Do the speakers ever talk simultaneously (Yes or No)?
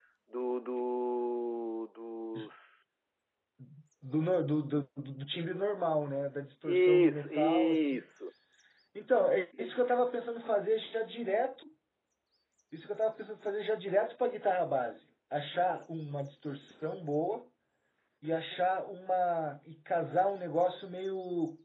Yes